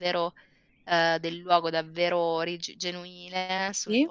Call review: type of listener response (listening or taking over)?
listening